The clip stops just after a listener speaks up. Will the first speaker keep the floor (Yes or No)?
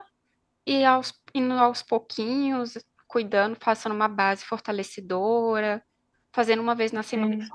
Yes